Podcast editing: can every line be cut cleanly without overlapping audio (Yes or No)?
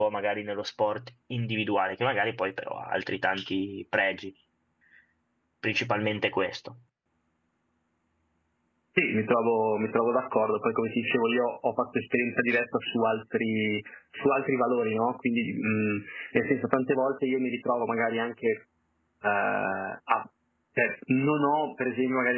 Yes